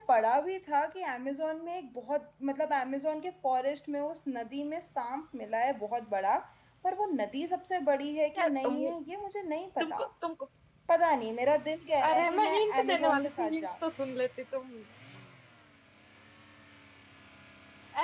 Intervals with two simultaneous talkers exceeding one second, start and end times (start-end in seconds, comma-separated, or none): 12.1-13.7